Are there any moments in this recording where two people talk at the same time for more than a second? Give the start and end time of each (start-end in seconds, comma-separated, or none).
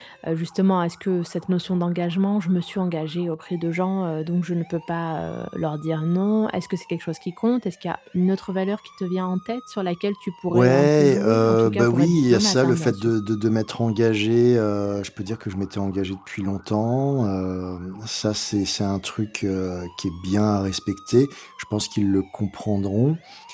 10.5-13.1